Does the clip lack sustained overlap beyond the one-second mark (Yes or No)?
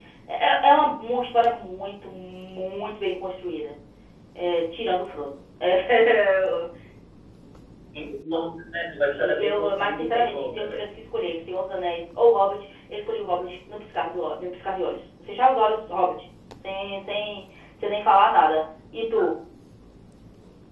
No